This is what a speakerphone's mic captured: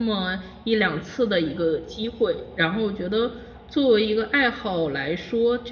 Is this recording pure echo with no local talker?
No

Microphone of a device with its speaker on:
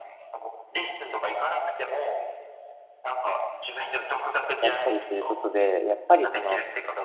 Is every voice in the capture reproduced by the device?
No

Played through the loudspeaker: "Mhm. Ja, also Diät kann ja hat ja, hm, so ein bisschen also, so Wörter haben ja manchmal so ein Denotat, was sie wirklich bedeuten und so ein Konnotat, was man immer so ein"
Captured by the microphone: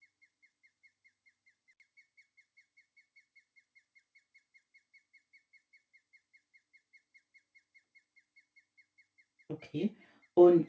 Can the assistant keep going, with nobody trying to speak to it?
No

